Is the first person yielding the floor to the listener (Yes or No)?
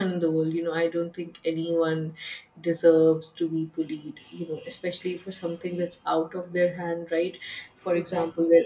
No